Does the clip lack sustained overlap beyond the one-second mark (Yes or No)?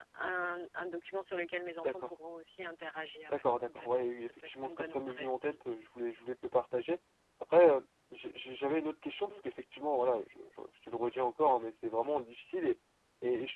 No